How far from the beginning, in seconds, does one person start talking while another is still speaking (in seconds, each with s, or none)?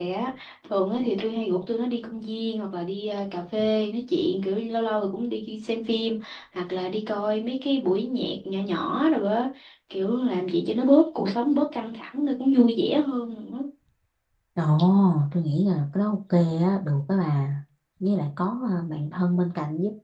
none